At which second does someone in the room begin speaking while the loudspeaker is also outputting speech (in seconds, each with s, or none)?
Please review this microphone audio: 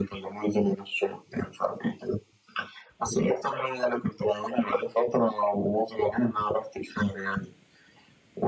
none